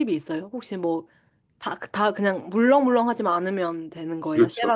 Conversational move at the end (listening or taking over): taking over